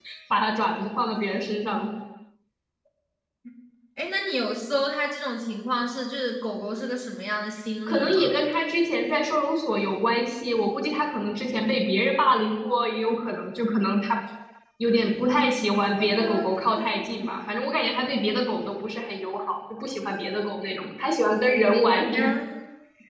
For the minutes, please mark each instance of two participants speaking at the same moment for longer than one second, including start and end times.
none

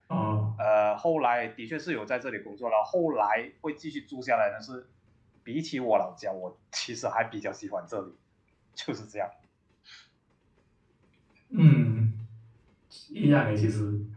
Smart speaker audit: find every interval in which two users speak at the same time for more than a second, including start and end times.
none

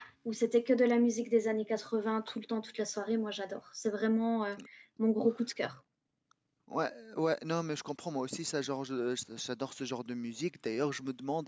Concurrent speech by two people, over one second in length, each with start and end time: none

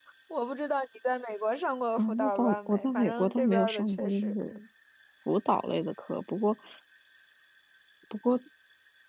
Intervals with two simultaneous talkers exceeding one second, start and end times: 1.9-4.3

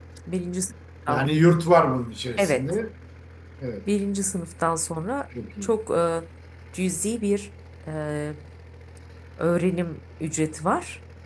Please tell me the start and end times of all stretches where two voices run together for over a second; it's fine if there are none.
none

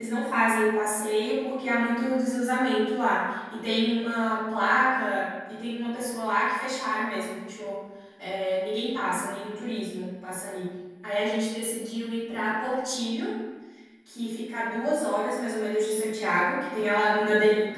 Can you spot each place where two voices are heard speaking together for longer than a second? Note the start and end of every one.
none

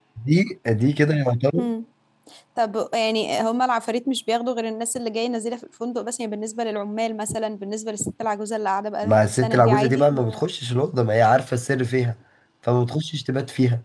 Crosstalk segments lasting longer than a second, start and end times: 9.0-10.5

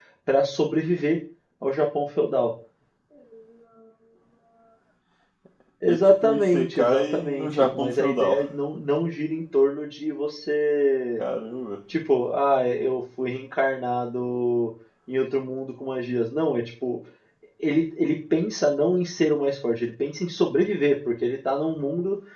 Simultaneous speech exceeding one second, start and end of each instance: 5.8-8.4

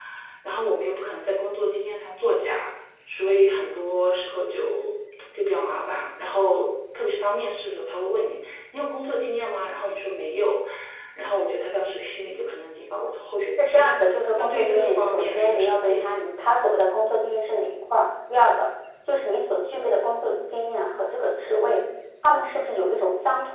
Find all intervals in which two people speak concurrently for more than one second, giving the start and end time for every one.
13.6-16.2

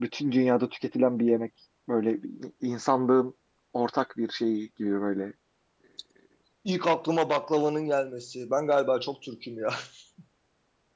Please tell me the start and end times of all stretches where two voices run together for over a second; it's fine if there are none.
none

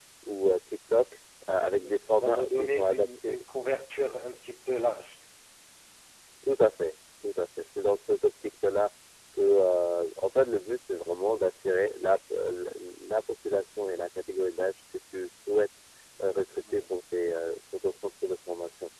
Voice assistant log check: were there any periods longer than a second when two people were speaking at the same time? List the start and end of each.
1.7-3.4

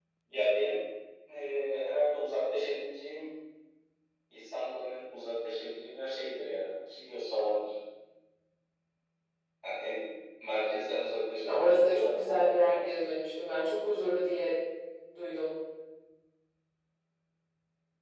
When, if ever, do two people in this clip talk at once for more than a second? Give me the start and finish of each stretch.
11.4-13.1

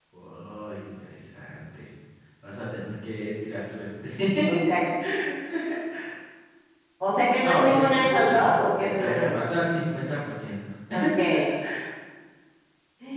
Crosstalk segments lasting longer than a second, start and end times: 7.4-9.5

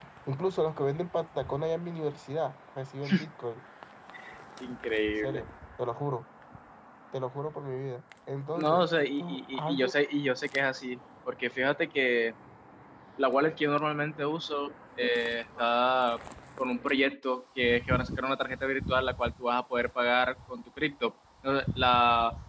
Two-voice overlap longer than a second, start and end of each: 8.6-9.9

